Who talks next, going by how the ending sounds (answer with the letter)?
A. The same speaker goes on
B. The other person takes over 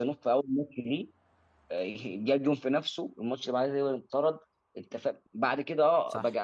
A